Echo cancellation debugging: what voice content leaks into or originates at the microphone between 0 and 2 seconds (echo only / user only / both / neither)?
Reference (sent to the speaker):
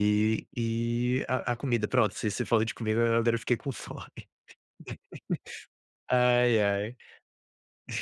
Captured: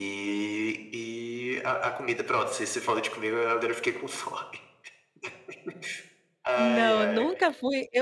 echo only